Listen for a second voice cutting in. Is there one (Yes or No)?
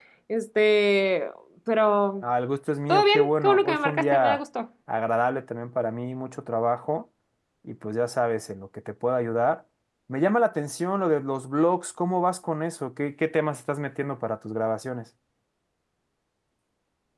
Yes